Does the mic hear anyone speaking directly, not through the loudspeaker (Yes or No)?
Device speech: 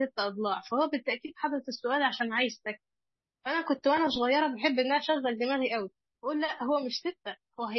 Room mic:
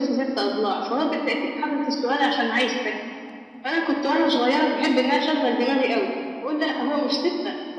No